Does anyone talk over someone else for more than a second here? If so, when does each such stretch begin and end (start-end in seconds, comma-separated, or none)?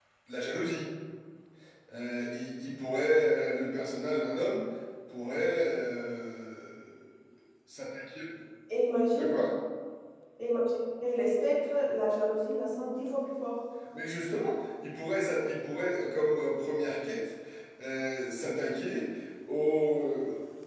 none